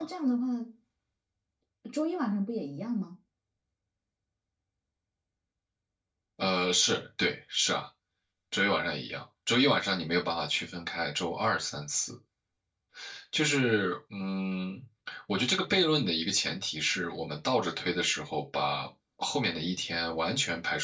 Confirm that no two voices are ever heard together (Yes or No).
Yes